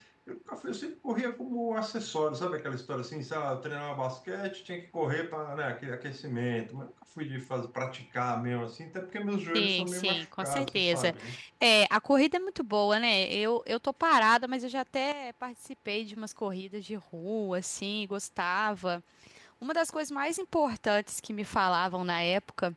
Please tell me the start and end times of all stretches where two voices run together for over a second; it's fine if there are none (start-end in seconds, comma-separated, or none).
9.5-11.1